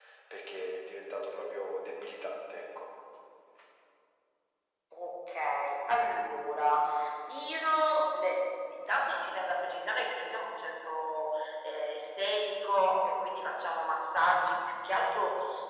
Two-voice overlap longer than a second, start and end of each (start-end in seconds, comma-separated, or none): none